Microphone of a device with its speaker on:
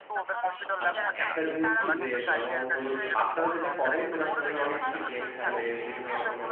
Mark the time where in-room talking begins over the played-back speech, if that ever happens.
0.8 s

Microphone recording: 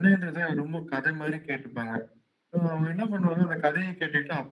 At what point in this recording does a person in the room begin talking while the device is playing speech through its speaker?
none

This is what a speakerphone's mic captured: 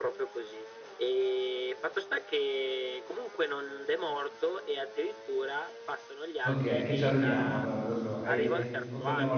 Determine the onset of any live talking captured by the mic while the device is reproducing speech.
6.4 s

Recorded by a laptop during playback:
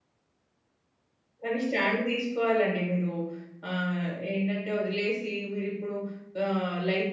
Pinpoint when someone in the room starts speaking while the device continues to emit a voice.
1.4 s

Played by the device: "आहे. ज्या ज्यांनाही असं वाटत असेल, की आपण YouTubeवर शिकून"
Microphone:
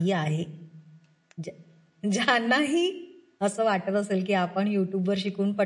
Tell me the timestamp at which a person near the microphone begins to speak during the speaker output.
none

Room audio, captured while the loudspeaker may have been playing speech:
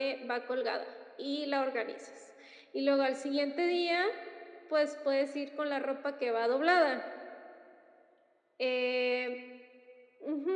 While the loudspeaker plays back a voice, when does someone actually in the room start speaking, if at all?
none

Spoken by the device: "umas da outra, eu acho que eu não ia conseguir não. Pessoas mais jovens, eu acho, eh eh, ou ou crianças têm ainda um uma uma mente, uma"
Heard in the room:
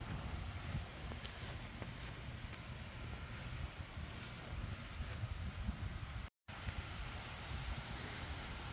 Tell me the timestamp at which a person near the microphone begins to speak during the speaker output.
none

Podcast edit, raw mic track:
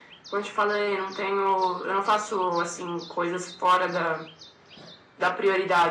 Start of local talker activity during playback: none

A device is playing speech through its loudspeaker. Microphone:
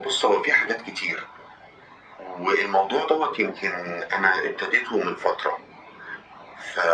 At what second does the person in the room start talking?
none

